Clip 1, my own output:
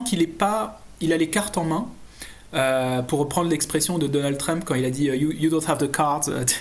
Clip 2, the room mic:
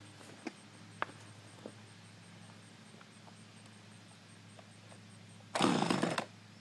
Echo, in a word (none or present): none